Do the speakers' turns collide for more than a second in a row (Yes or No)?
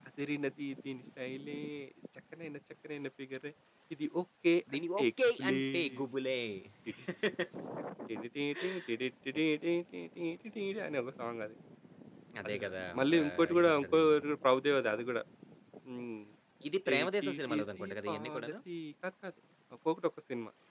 Yes